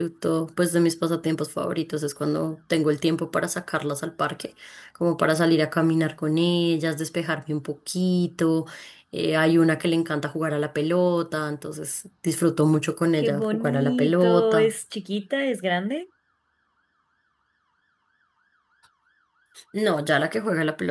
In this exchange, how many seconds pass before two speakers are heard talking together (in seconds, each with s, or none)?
13.2 s